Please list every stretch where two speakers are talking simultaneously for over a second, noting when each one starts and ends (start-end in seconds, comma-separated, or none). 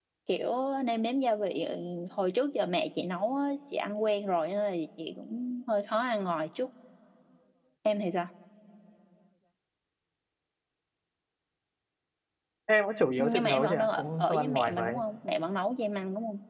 13.2-14.9